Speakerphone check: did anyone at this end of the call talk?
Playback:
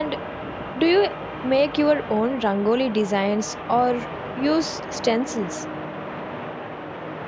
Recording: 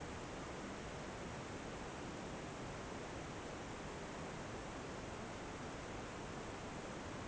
No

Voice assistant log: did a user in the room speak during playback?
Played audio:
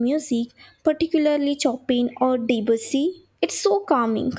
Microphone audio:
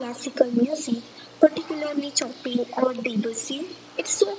No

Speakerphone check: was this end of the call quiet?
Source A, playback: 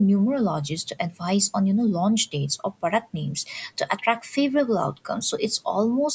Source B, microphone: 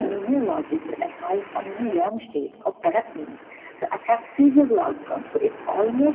Yes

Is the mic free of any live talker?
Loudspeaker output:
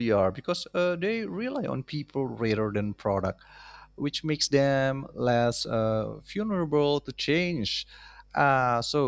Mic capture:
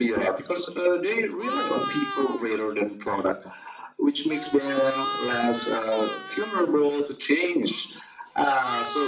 Yes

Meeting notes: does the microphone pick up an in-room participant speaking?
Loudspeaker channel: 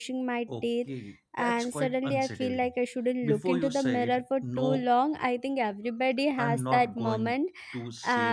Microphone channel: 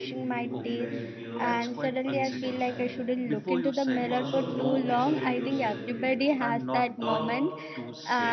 Yes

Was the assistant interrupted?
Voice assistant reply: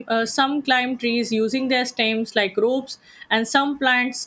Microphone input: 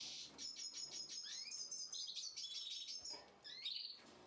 No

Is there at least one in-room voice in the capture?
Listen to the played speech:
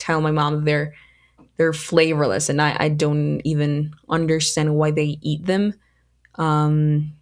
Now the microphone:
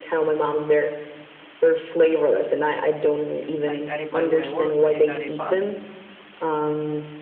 Yes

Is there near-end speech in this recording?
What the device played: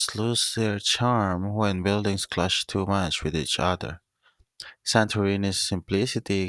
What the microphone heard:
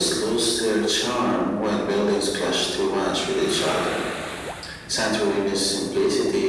No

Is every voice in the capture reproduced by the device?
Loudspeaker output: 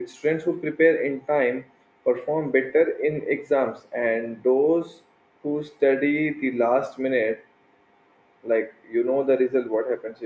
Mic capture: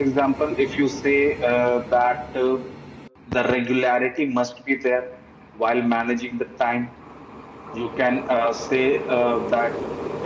No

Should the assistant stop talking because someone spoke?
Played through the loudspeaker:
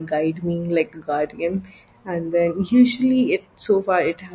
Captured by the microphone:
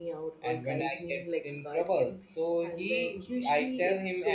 Yes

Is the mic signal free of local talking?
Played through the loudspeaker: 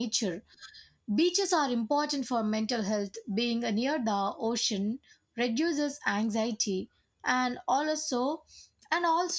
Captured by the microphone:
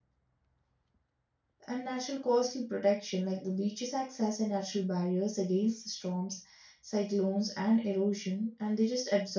No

